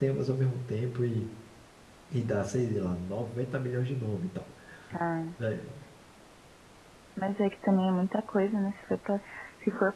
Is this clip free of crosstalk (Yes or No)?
Yes